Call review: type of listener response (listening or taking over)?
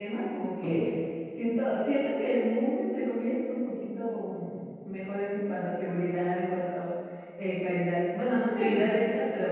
listening